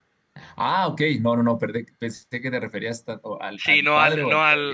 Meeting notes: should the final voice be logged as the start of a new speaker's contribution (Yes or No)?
Yes